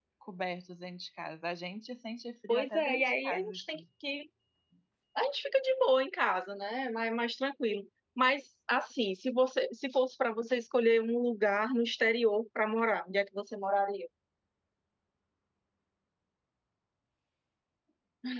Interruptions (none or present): present